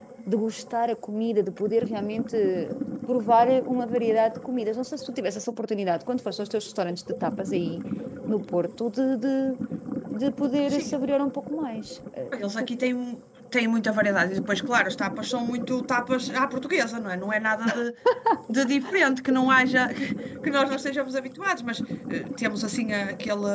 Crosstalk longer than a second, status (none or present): none